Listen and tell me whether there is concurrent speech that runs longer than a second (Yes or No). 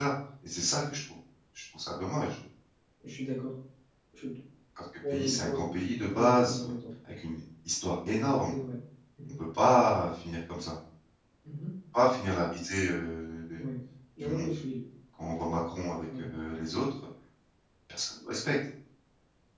Yes